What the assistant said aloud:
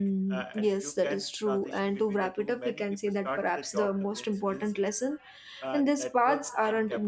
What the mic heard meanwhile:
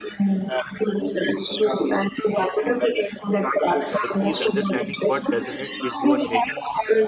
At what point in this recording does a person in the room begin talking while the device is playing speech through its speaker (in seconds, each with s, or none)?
3.8 s